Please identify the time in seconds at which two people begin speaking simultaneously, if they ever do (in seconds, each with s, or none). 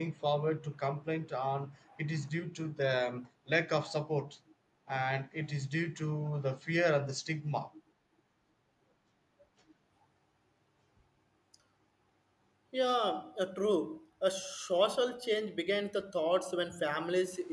none